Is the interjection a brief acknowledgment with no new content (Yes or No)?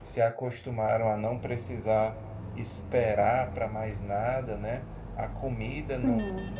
Yes